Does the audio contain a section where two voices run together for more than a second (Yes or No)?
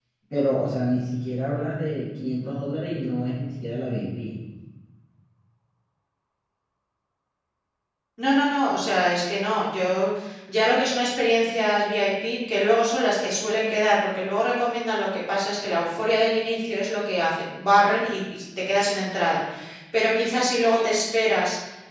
No